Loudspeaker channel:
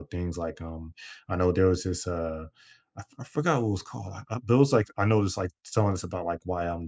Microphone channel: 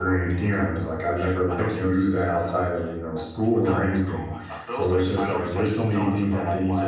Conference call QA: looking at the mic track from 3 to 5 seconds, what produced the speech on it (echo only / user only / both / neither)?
both